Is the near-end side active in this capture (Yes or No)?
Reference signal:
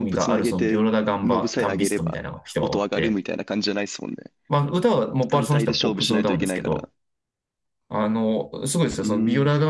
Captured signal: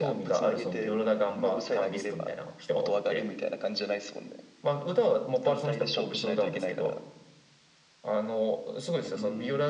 No